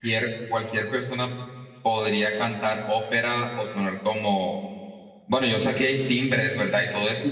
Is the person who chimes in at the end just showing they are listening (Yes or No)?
No